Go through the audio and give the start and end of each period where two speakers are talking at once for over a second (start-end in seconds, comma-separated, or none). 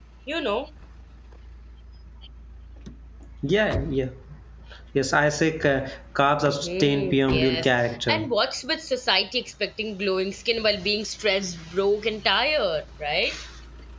6.3-7.7